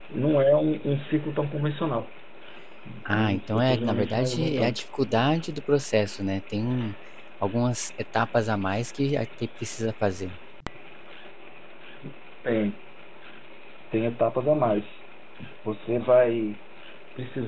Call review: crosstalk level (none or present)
present